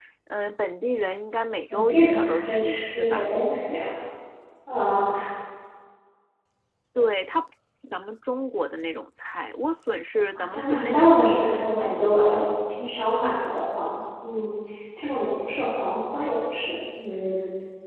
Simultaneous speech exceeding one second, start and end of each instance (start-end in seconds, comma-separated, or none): 1.7-3.3, 10.3-11.6